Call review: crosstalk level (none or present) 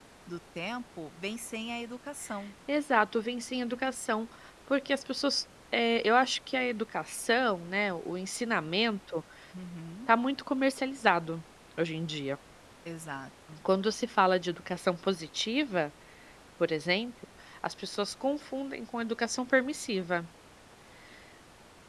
none